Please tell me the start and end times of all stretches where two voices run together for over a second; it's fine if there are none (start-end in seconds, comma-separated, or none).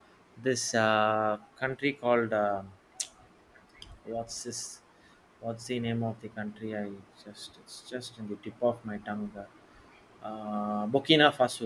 none